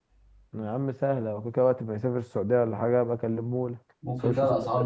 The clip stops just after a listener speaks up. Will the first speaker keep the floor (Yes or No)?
No